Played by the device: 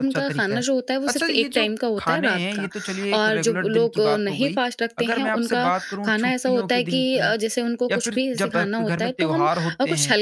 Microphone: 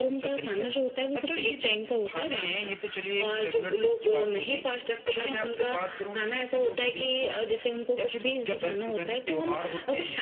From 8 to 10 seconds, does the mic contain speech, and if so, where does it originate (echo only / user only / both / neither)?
echo only